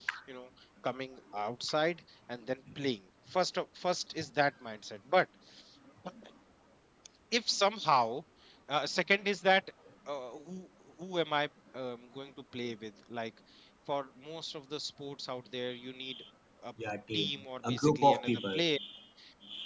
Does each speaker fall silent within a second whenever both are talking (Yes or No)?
No